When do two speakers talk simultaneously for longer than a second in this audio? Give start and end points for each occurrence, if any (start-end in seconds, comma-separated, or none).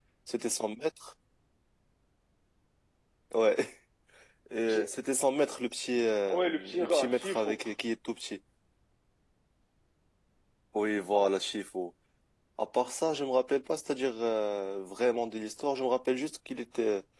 6.3-7.6